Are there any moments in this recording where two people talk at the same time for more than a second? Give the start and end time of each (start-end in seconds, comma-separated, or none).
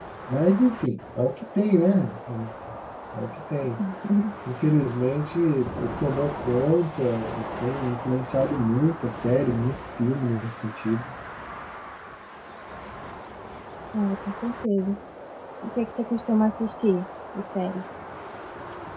none